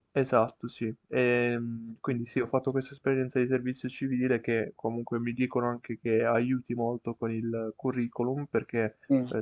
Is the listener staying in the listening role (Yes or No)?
Yes